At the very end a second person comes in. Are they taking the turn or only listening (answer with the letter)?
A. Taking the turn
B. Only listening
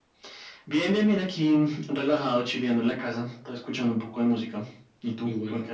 A